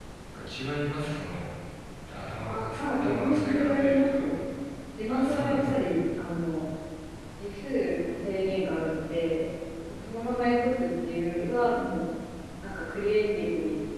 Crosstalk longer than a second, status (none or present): present